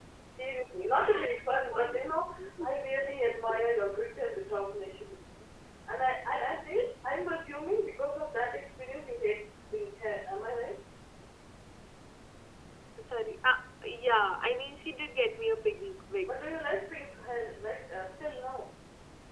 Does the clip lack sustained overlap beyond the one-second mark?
Yes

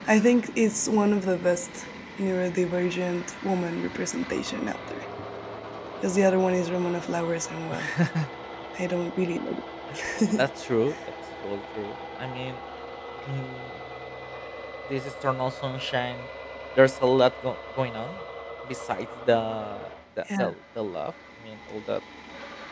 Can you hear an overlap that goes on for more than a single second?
No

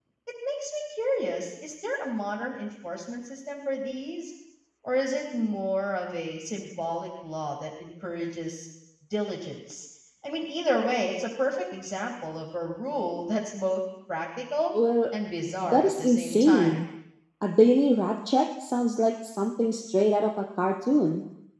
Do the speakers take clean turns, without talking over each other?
No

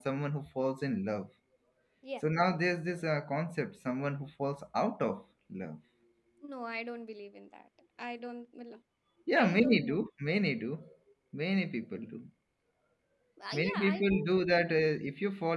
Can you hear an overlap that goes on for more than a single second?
Yes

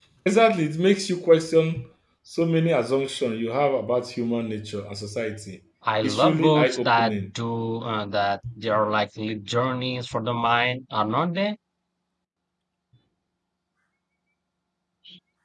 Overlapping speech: Yes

